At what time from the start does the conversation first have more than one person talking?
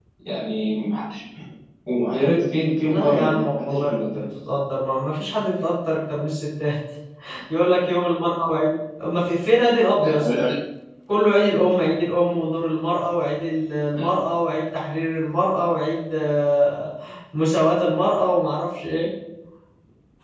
2.8 s

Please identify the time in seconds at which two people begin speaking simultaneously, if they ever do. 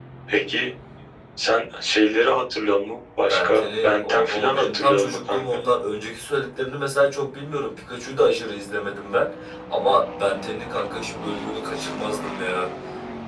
3.2 s

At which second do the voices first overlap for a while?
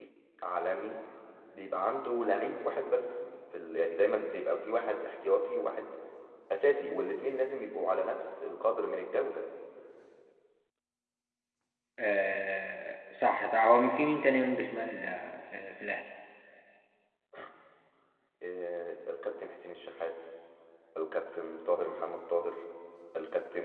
none

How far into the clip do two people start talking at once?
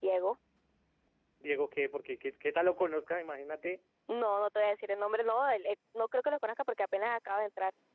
none

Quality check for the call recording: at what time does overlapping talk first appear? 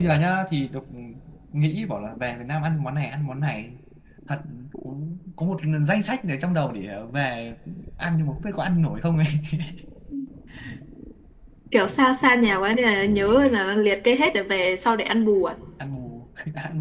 none

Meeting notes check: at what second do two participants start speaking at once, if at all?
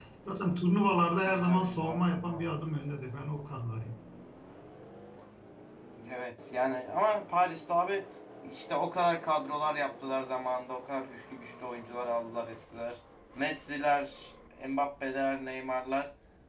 1.3 s

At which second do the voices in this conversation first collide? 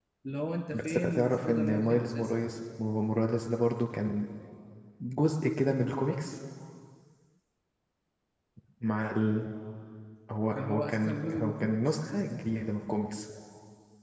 0.7 s

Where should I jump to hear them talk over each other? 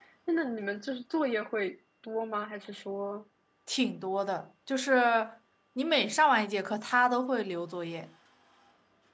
none

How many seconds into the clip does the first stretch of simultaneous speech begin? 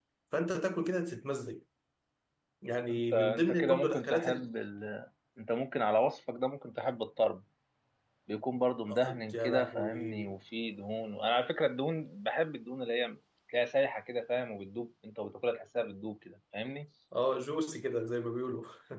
2.9 s

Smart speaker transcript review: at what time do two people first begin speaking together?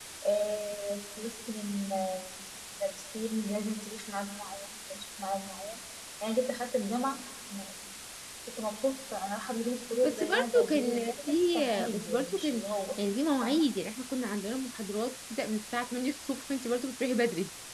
10.0 s

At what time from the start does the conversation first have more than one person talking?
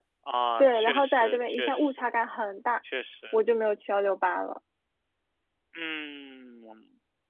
0.6 s

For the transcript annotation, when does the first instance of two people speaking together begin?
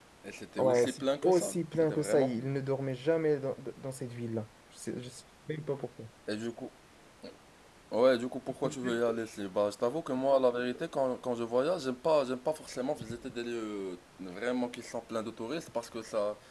0.6 s

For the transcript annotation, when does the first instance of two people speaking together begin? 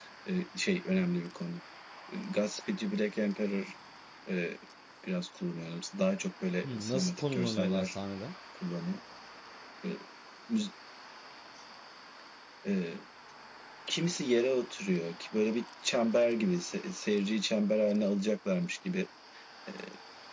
6.6 s

